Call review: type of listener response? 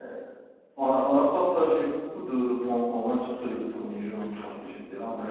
taking over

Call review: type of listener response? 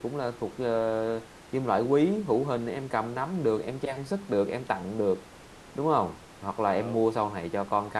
listening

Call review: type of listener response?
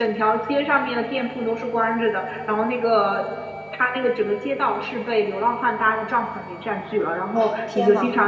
listening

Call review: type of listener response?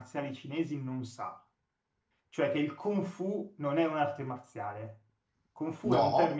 listening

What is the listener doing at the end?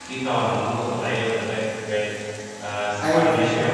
listening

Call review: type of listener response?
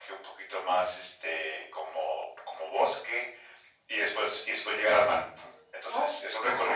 listening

